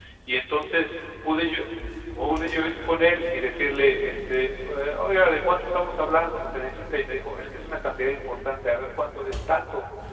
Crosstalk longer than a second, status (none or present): present